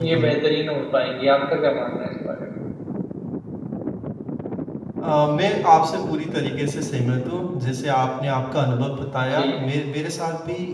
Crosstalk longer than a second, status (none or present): none